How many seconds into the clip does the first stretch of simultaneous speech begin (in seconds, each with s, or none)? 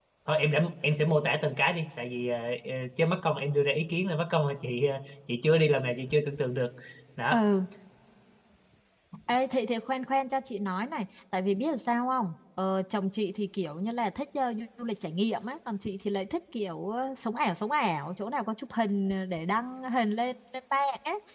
none